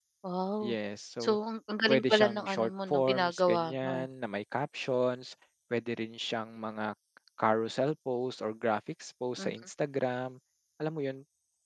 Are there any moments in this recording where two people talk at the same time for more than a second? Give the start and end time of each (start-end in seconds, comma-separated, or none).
1.9-4.0